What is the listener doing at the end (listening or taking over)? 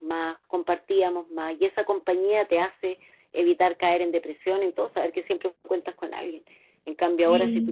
listening